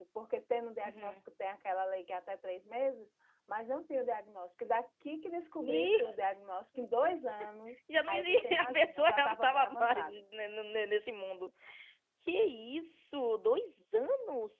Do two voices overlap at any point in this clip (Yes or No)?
Yes